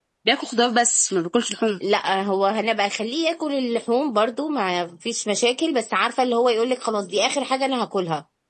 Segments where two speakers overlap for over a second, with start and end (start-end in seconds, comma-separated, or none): none